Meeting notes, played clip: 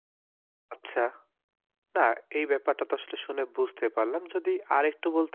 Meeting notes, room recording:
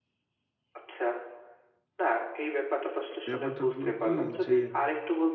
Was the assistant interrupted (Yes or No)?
Yes